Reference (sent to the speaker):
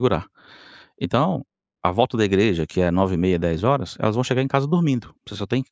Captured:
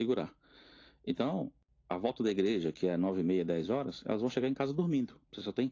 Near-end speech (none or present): none